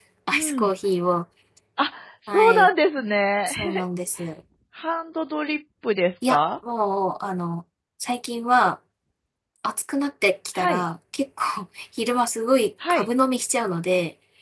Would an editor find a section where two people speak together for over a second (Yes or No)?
No